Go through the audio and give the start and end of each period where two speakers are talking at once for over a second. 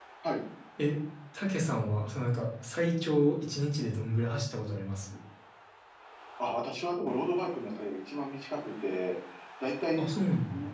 none

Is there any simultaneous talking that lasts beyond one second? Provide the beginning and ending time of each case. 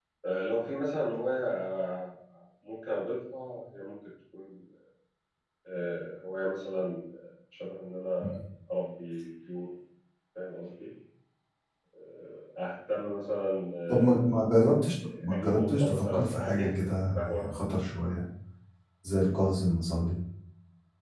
15.2-17.5

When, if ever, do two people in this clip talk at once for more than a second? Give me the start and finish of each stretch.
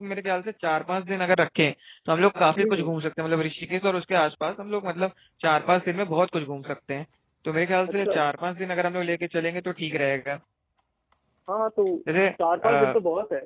none

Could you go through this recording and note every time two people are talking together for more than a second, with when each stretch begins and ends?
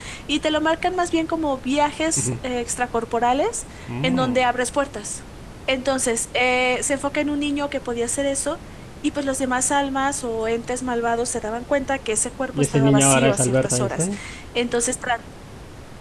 12.5-14.1

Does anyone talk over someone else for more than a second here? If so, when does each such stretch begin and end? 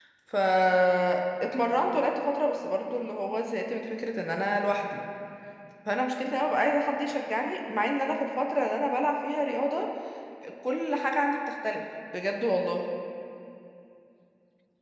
none

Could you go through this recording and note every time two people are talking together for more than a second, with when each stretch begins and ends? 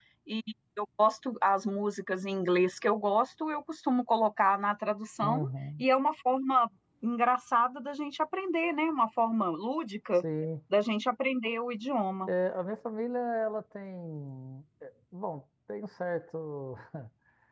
none

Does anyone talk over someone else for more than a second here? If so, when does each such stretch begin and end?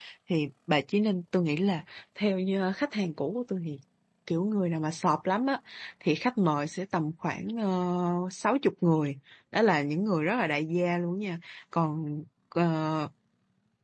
none

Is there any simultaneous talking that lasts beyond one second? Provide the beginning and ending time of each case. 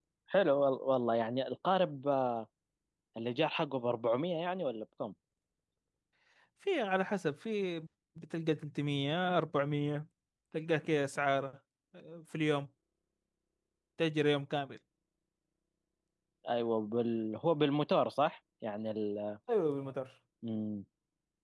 none

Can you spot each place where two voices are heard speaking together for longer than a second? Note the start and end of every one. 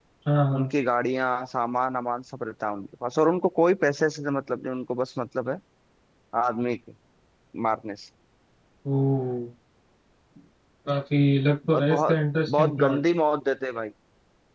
11.7-13.0

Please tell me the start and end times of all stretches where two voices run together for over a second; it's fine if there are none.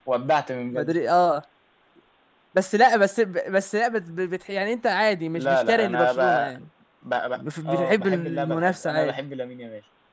5.3-6.6, 7.4-9.2

